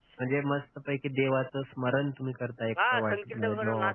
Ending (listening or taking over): taking over